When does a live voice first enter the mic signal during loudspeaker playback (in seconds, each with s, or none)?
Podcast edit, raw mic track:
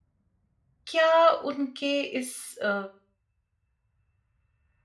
0.9 s